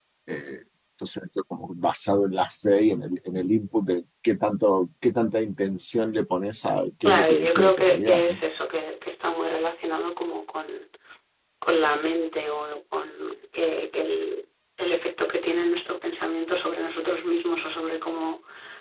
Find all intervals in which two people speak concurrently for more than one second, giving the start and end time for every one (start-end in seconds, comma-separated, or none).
7.0-8.4